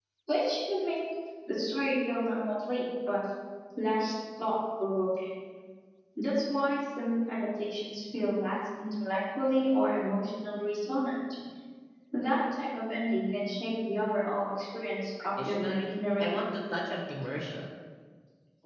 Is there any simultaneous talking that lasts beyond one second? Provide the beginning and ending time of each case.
15.2-16.4

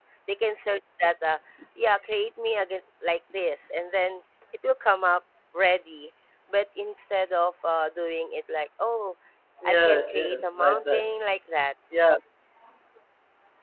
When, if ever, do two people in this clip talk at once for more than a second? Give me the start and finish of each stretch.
9.7-11.1

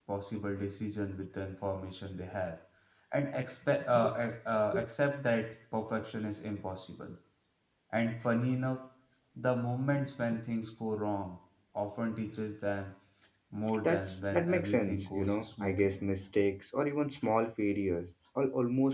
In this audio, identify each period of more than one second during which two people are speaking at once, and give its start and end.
13.8-16.0

